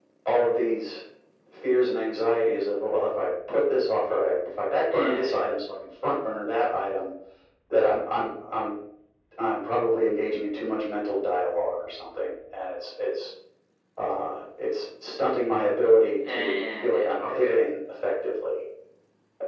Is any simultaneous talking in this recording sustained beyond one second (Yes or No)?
Yes